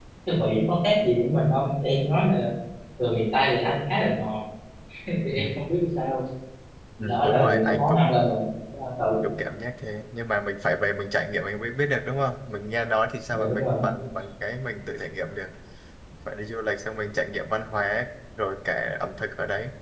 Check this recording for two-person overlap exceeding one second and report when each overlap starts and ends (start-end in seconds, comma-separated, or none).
7.0-8.3